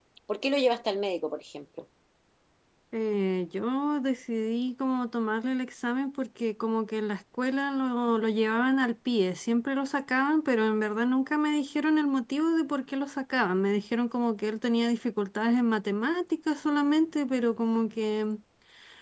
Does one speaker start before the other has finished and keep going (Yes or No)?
No